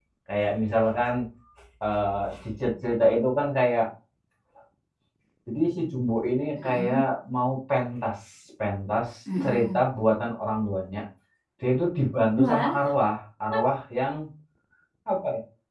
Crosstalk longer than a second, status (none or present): none